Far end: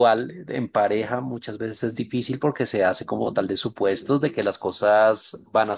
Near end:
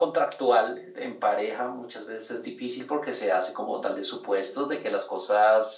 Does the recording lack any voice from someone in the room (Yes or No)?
Yes